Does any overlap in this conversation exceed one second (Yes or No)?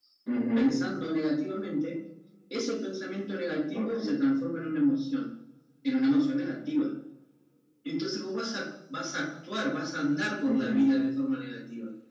No